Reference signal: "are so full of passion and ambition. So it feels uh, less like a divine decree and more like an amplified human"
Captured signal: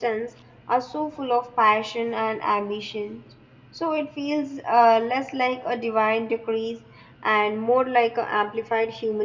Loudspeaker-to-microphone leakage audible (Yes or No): Yes